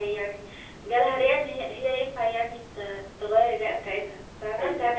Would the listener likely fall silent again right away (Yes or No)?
No